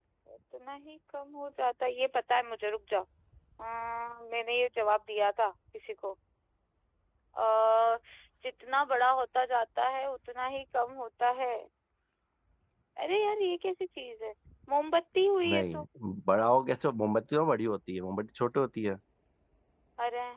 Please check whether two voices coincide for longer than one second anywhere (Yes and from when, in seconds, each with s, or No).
No